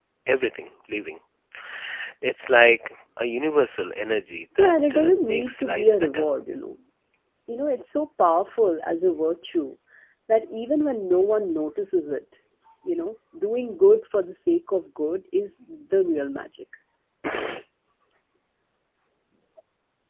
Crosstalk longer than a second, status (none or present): present